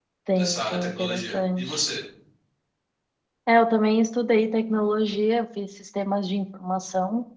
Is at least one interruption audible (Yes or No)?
Yes